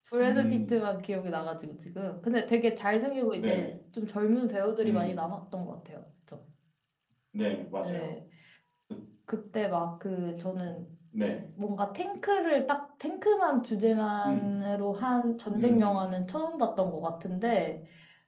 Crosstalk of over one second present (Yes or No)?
No